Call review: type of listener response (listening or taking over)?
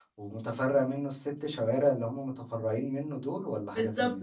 taking over